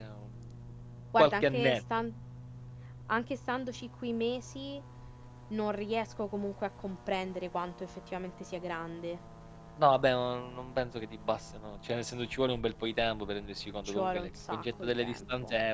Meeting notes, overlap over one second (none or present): present